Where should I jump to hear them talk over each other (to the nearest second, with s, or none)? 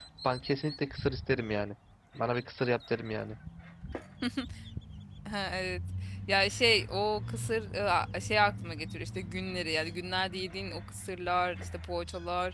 none